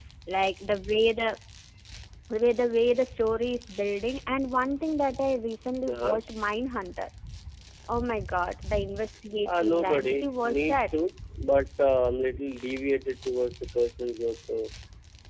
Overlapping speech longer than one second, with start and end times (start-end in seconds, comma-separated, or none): 9.4-11.0